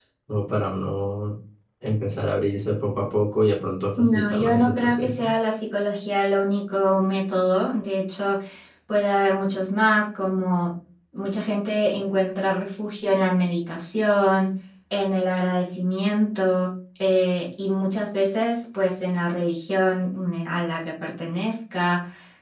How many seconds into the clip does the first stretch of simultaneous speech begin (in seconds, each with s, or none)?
4.0 s